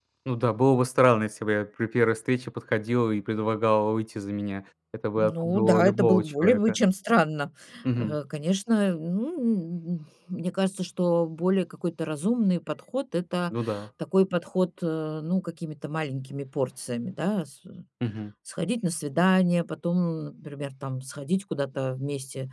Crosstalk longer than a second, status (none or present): present